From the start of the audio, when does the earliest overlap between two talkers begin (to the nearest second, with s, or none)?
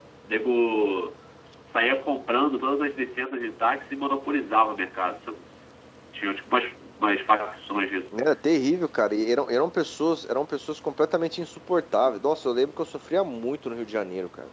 none